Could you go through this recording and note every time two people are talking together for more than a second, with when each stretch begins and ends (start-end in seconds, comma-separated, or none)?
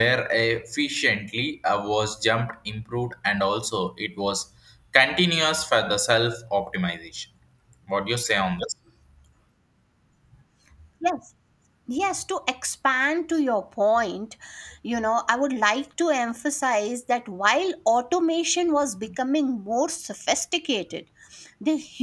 none